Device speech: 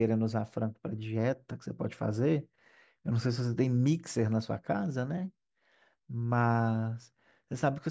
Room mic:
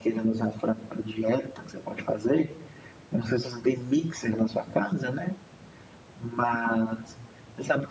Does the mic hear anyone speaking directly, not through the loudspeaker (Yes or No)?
No